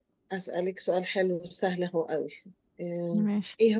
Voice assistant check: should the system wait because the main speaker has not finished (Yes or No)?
Yes